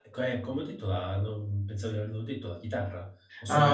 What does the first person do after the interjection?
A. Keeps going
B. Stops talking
A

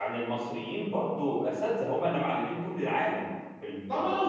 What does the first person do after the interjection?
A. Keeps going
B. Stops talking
B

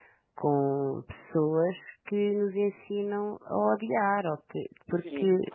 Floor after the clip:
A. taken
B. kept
A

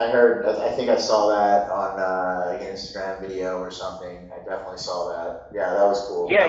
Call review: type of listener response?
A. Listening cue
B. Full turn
B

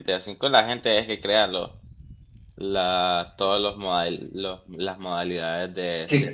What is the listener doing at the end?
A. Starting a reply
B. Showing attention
A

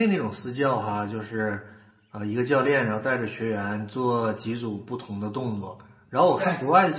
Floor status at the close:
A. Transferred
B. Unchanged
B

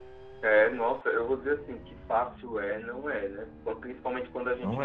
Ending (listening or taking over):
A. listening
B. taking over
A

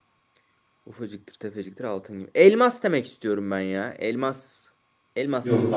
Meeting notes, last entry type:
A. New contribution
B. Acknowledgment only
A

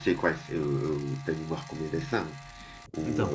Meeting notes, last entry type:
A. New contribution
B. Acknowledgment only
B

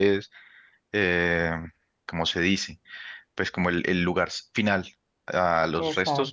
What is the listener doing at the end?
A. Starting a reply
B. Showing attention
B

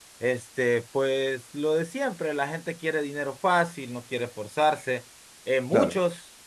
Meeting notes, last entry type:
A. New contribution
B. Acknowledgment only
B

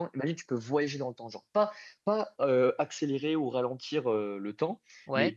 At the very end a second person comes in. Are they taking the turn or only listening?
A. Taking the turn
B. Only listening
B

